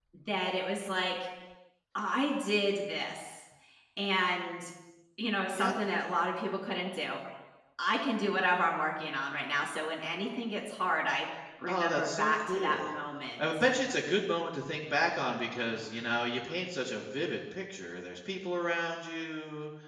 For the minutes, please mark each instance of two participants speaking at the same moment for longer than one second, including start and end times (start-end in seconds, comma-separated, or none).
11.7-12.9